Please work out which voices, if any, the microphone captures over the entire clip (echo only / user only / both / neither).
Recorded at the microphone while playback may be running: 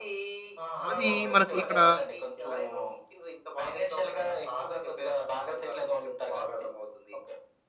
both